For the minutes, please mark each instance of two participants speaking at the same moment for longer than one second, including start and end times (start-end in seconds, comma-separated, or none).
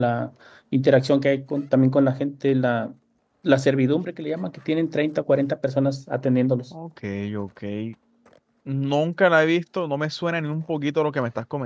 none